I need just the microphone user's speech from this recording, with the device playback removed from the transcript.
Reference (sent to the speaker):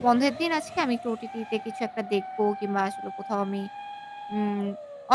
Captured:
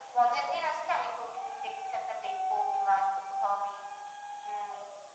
none

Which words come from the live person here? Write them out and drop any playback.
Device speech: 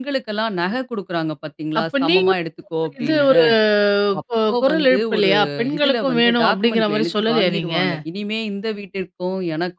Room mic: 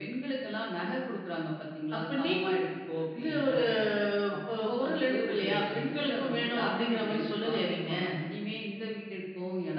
none

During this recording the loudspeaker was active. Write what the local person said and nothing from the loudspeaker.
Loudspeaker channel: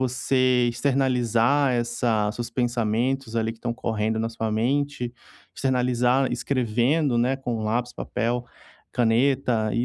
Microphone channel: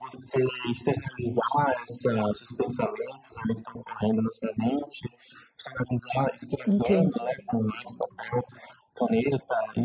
entendi.

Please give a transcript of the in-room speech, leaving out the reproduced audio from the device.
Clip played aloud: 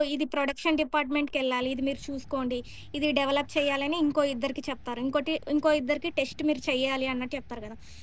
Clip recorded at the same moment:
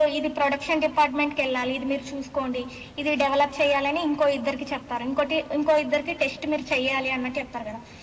none

